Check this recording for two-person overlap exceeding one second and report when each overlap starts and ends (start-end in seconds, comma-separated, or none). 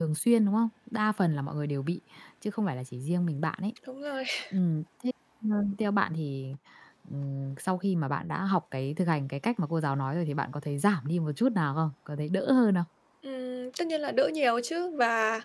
none